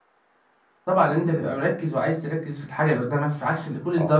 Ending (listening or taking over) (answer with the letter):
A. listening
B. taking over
B